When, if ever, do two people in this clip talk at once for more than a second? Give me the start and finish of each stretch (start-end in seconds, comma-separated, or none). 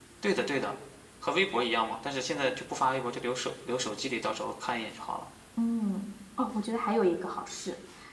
none